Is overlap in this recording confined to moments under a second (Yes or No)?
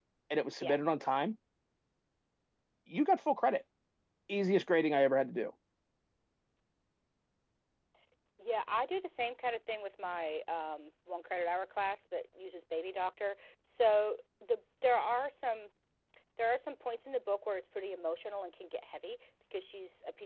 Yes